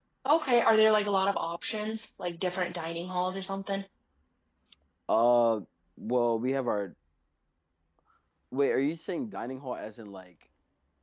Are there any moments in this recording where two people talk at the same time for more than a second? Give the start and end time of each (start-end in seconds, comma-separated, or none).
none